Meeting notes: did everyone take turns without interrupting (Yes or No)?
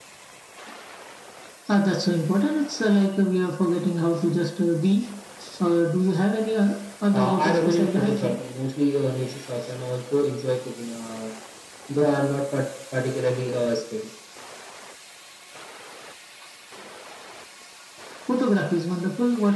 No